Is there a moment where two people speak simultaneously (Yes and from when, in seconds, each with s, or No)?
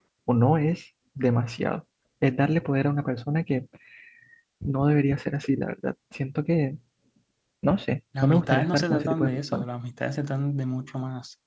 Yes, from 8.2 s